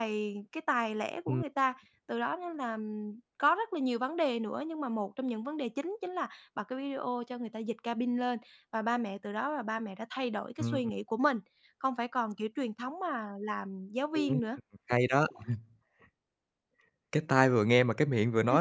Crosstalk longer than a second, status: none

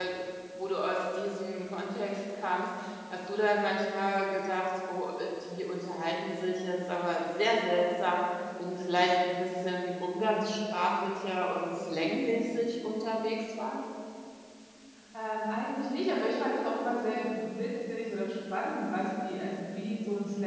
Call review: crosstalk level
none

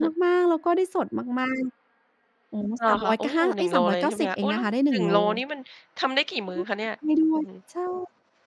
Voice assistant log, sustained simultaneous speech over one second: present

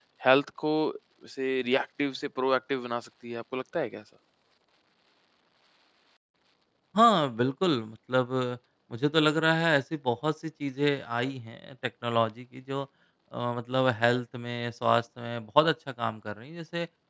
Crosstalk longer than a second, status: none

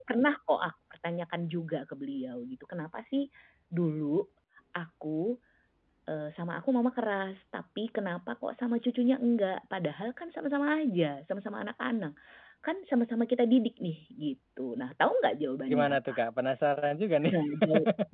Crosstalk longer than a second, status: none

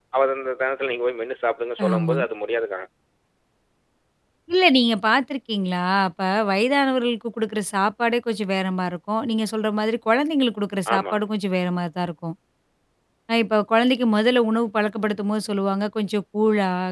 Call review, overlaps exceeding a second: none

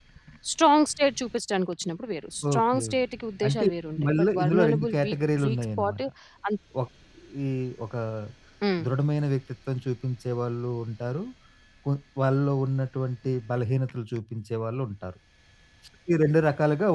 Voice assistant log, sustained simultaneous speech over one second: present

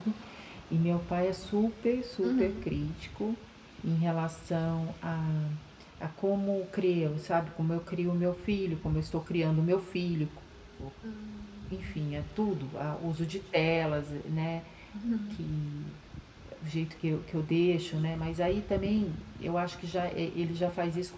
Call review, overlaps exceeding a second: none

